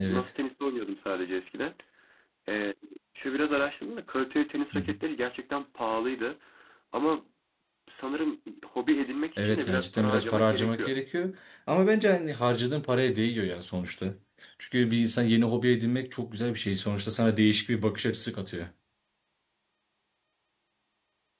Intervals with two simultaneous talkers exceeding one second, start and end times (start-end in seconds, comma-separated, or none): 9.4-10.9